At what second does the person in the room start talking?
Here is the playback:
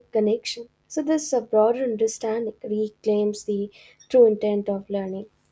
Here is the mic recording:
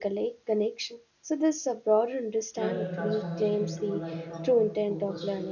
2.5 s

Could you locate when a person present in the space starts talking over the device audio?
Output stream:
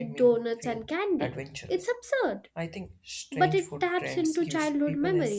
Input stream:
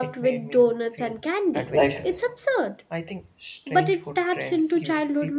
1.7 s

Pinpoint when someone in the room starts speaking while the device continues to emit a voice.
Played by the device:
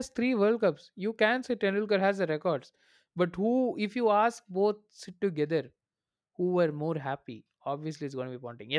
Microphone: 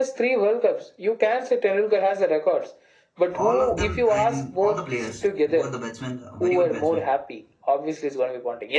3.3 s

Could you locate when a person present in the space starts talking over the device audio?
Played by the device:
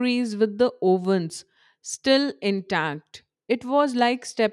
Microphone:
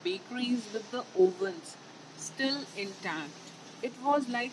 none

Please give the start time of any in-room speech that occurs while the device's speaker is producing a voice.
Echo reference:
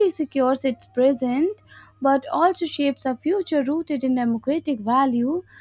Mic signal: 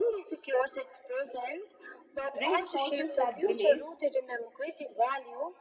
2.3 s

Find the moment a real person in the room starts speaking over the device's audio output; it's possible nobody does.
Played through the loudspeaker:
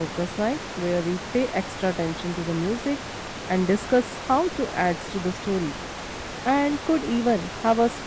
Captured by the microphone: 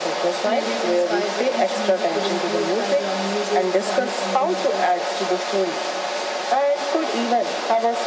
0.5 s

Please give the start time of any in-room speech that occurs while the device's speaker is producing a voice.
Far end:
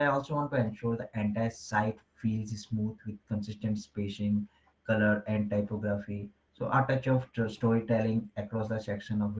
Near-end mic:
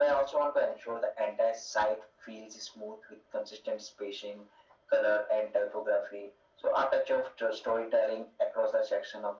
none

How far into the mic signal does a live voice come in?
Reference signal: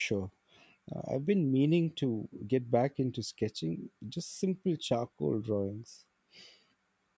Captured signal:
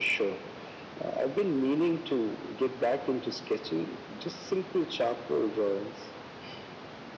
none

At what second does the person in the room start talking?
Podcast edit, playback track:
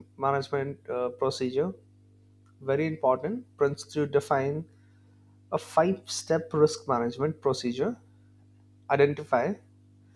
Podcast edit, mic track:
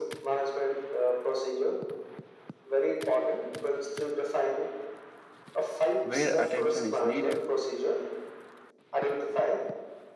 6.0 s

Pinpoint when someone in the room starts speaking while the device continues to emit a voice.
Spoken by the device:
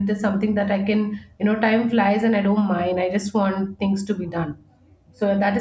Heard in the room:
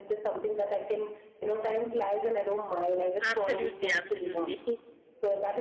3.2 s

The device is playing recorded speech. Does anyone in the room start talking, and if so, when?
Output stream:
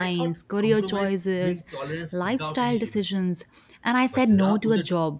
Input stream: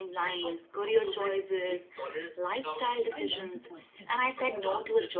3.1 s

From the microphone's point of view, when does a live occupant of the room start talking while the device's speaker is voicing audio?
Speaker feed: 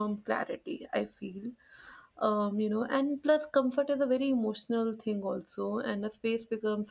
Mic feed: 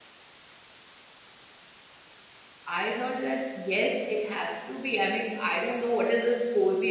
2.7 s

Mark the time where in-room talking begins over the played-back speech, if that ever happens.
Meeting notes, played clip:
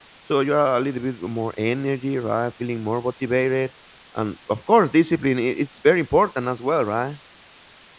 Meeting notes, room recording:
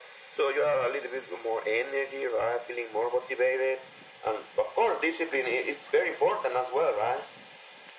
none

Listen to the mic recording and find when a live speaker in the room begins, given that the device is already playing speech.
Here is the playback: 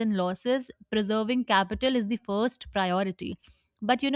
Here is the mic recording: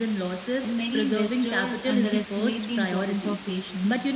0.6 s

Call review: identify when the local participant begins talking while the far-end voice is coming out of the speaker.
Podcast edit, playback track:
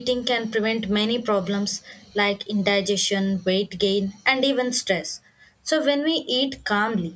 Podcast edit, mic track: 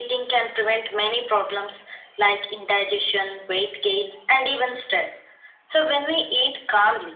none

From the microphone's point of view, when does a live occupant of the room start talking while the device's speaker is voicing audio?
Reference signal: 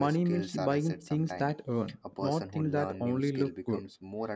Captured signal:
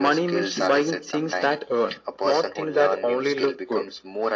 none

